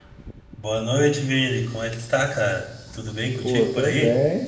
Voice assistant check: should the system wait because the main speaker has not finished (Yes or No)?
No